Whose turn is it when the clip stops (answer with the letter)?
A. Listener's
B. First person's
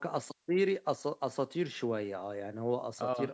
B